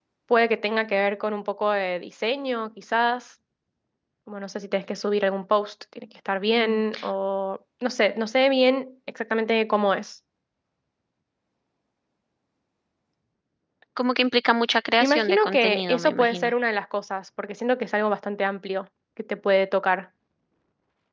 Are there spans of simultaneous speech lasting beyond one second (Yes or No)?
Yes